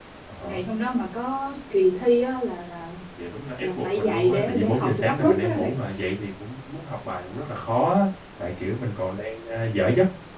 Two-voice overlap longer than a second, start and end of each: 3.6-5.7

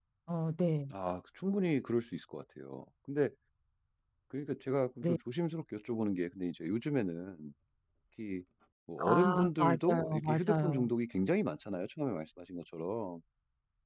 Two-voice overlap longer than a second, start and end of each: 9.1-10.8

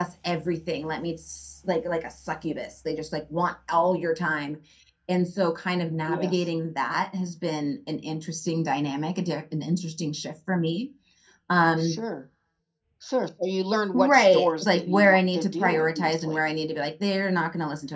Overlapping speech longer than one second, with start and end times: 13.9-16.4

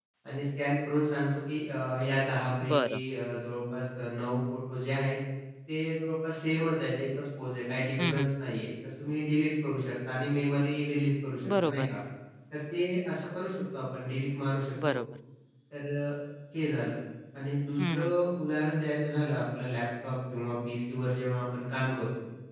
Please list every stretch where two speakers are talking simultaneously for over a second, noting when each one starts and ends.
none

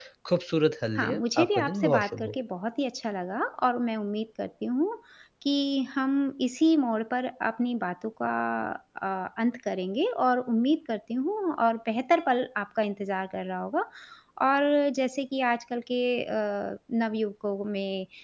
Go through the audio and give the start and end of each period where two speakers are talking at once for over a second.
1.0-2.4

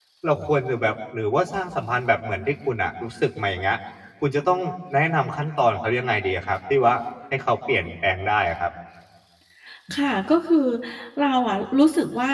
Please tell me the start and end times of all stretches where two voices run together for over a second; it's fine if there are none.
none

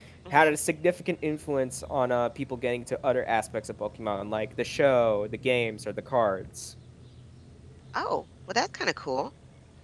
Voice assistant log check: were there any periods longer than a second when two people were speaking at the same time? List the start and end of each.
none

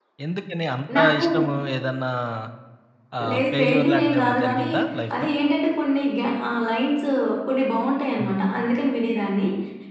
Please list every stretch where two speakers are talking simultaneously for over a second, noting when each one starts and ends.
3.3-4.7

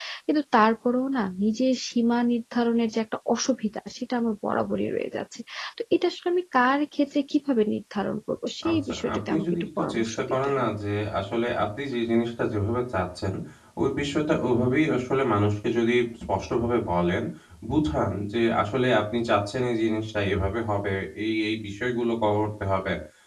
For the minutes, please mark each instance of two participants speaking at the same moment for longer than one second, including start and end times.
8.7-10.6

